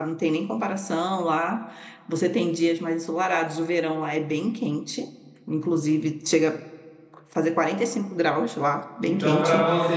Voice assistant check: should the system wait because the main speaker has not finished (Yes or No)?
No